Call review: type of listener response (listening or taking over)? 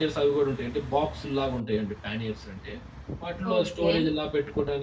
listening